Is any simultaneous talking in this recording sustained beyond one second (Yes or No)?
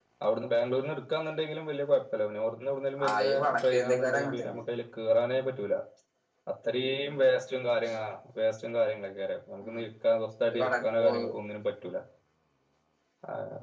Yes